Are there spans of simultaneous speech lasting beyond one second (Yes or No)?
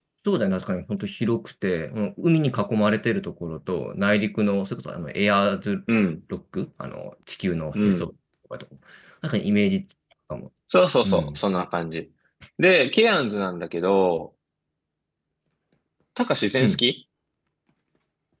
No